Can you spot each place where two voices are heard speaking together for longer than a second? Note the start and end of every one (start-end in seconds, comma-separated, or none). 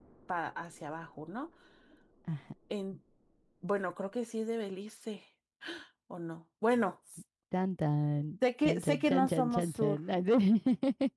8.6-10.0